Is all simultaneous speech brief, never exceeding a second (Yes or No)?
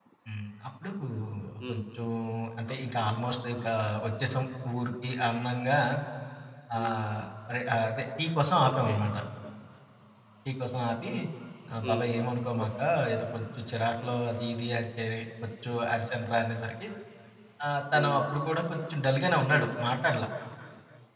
Yes